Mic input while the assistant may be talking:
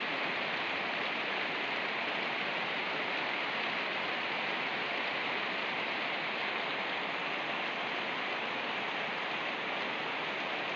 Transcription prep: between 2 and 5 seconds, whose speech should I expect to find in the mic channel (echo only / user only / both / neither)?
neither